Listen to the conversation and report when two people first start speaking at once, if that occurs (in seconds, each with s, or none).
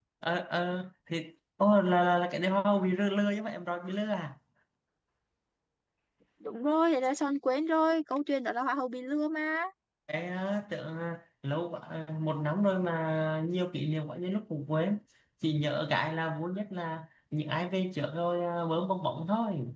none